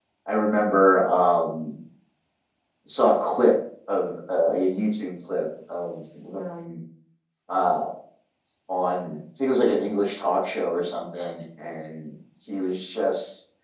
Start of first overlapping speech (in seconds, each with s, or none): none